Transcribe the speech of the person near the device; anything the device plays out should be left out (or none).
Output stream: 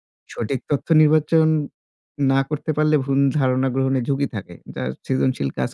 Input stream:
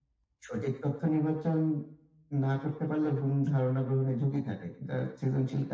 none